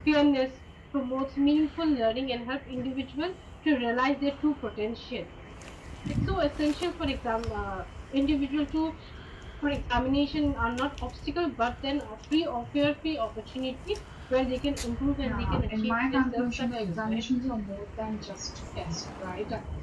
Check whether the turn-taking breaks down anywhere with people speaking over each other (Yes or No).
Yes